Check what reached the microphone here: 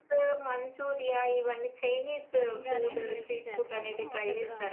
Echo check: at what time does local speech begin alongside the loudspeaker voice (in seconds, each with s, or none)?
2.4 s